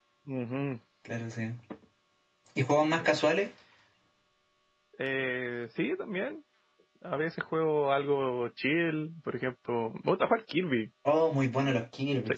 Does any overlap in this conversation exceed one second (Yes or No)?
No